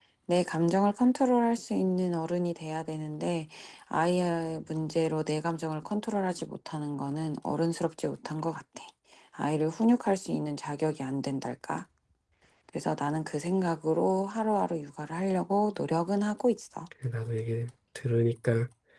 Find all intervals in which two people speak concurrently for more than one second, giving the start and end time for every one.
none

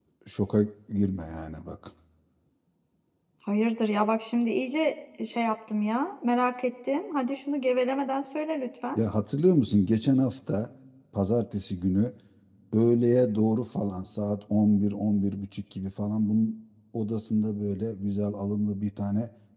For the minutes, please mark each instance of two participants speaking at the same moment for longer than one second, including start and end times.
none

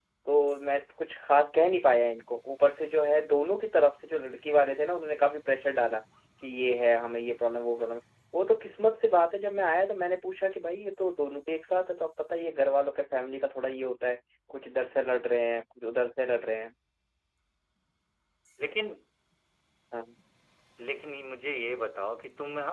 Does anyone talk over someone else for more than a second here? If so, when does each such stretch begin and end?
none

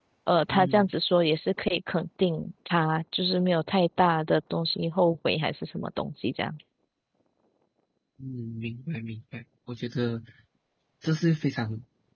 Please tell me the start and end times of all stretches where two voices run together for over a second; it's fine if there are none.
none

